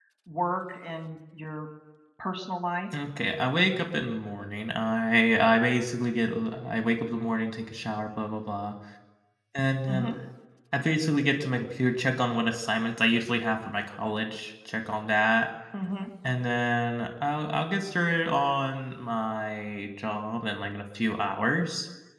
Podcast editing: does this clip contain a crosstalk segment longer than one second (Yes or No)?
No